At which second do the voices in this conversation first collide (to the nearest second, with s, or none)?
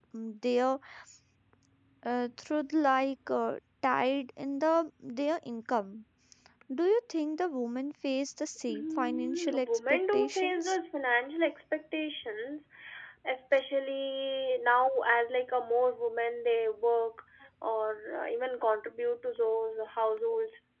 9 s